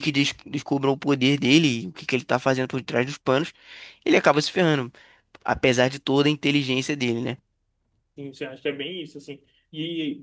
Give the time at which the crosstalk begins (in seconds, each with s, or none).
none